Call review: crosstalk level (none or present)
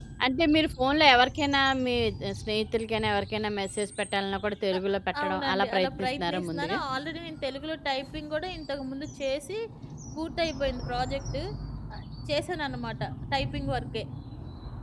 present